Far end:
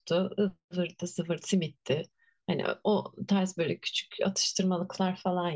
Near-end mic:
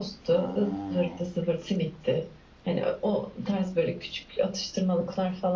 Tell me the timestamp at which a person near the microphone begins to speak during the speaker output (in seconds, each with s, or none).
none